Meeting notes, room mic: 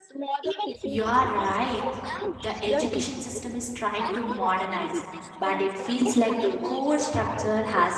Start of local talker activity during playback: 0.8 s

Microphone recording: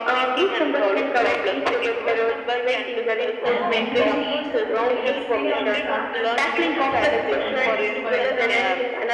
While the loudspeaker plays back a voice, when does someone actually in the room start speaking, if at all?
3.5 s

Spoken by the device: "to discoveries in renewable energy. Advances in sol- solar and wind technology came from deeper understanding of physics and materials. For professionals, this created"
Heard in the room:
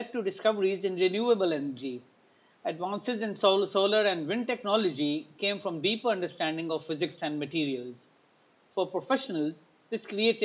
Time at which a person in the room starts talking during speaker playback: none

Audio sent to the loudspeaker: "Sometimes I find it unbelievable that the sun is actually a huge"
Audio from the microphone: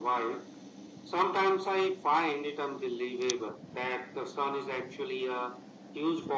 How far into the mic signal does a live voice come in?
none

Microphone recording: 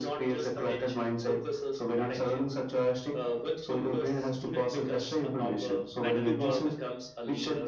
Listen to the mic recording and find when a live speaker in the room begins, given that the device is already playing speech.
5.9 s

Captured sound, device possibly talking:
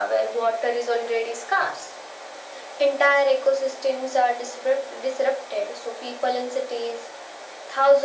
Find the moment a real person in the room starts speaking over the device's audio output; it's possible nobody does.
none

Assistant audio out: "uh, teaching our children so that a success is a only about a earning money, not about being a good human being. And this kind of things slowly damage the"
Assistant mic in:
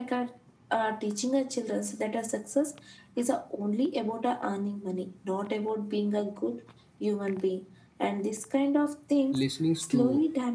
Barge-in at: 9.3 s

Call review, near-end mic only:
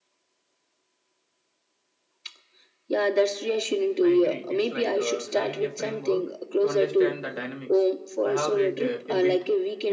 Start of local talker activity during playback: 4.0 s

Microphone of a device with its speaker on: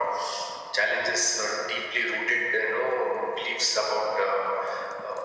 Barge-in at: none

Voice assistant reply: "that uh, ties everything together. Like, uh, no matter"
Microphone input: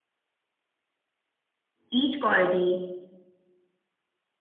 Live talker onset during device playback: 1.9 s

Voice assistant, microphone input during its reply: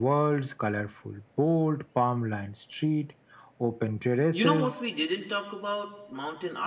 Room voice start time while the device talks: 4.3 s

